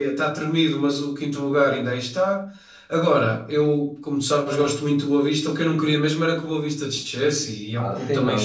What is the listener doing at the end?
taking over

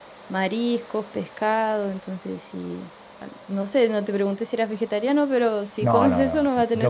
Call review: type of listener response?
taking over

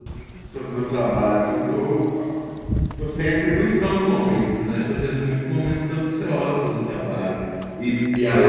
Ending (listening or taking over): listening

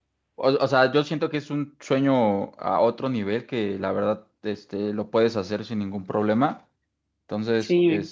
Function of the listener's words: listening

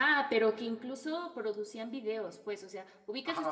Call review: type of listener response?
listening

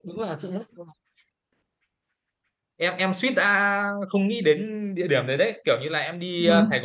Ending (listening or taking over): listening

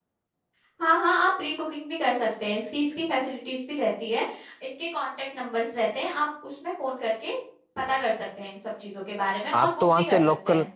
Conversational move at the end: taking over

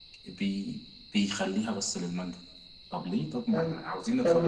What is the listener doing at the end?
taking over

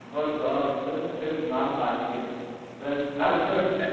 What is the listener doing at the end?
taking over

